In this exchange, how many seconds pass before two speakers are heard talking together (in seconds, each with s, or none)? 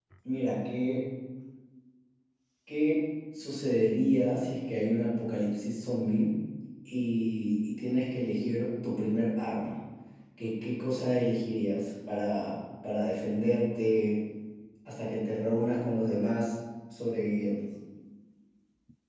none